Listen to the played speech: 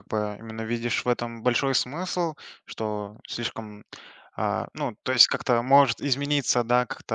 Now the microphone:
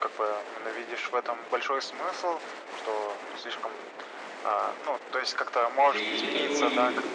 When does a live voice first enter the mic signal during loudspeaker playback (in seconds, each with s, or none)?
5.5 s